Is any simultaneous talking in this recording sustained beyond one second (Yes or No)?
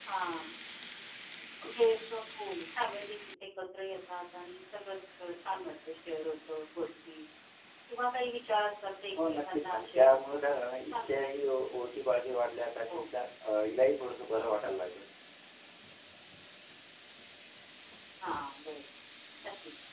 Yes